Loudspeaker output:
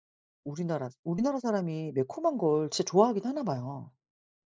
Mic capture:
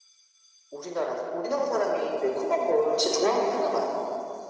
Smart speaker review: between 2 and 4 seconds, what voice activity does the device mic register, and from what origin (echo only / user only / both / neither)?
echo only